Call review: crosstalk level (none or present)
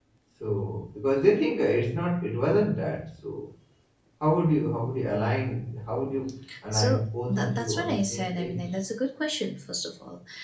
present